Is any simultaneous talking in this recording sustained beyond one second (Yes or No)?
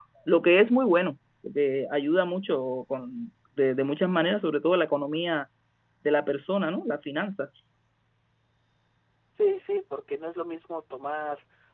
No